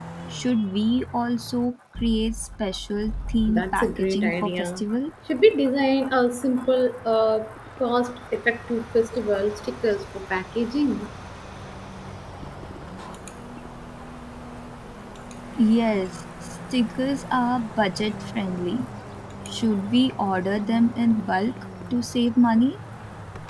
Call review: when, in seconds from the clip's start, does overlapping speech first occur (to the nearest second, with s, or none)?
3 s